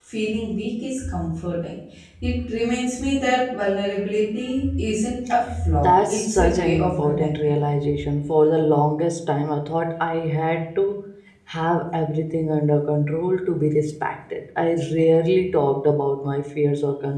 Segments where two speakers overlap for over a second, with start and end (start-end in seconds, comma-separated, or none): 5.8-7.5